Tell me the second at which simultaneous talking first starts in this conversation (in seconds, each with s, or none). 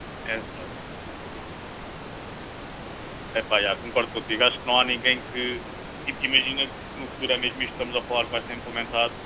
none